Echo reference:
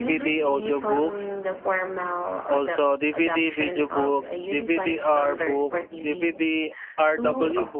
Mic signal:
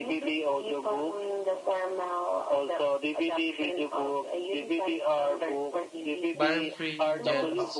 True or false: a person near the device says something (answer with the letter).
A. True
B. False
A